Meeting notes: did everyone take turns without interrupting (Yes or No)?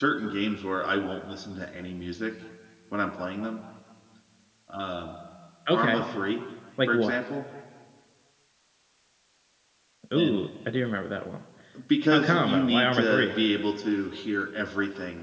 No